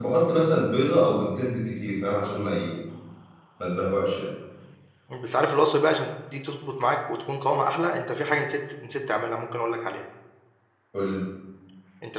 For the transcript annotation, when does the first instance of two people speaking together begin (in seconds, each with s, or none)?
none